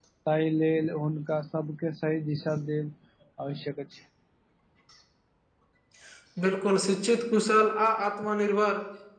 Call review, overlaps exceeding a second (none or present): none